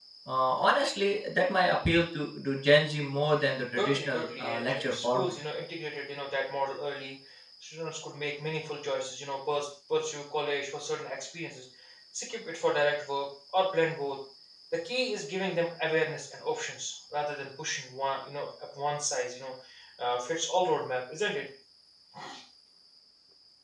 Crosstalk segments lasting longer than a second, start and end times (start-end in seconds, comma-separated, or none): 3.8-5.3